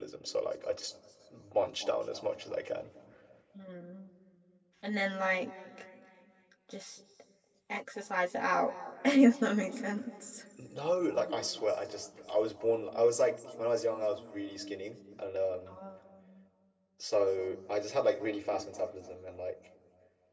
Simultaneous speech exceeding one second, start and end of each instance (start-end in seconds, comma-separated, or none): none